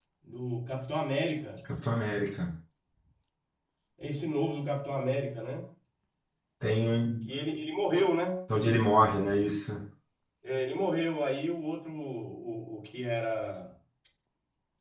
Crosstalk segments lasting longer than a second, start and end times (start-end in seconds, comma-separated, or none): none